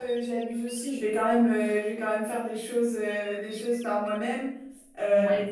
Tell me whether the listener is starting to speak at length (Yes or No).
No